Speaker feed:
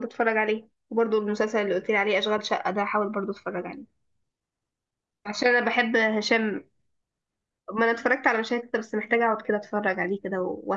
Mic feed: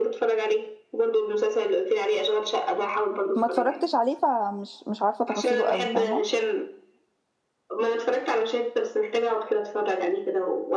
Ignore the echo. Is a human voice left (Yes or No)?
Yes